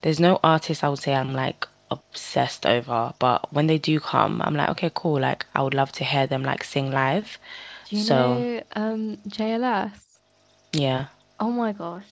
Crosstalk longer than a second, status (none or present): none